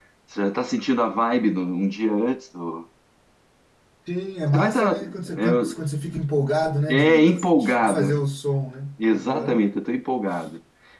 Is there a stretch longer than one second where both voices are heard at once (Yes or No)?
Yes